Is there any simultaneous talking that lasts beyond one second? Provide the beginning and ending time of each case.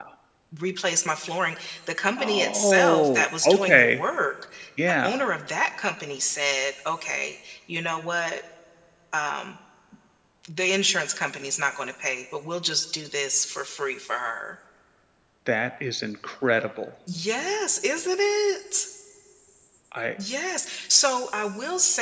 2.2-4.0

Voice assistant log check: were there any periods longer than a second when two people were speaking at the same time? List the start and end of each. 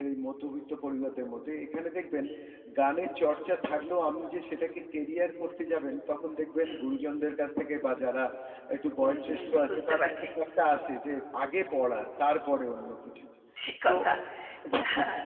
9.0-10.3

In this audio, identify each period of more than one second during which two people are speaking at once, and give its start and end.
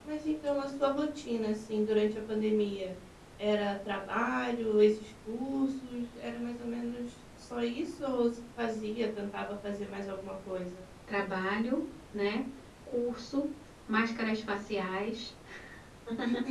none

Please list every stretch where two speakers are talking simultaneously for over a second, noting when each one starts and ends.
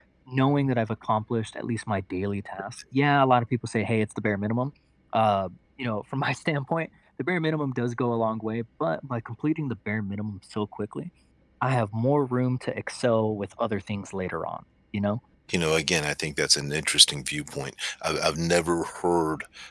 none

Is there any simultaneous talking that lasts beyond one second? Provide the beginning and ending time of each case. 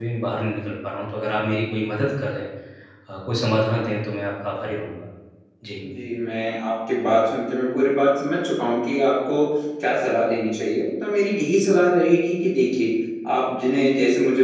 none

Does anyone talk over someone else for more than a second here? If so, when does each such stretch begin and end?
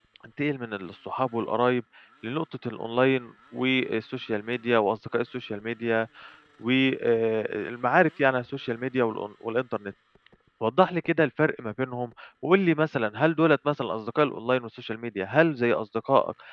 none

